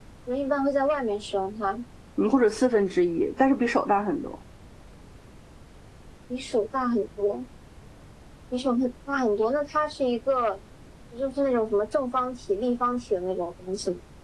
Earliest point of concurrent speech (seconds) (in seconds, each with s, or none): none